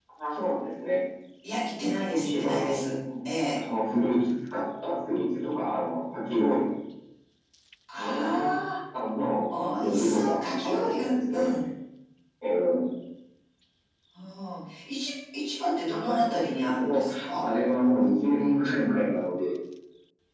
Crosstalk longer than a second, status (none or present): present